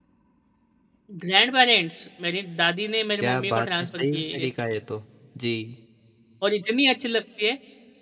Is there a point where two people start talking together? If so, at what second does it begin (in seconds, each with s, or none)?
3.2 s